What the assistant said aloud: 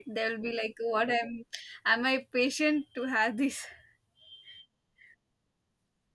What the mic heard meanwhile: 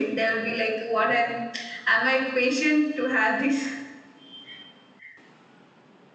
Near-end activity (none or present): none